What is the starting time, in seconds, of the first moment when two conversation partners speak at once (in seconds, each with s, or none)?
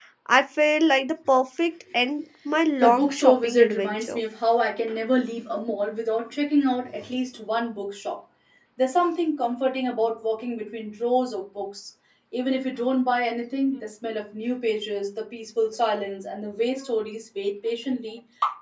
2.8 s